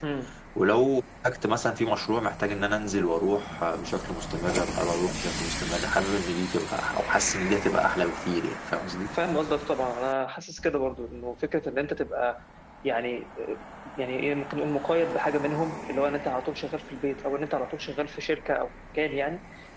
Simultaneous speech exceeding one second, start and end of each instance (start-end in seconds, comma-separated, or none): none